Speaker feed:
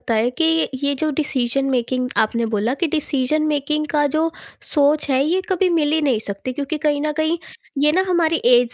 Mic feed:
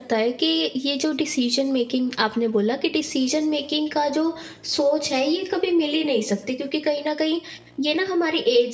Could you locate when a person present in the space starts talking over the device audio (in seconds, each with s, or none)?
none